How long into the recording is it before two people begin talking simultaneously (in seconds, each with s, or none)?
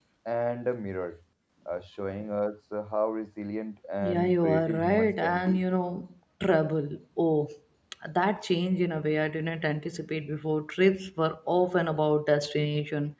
4.0 s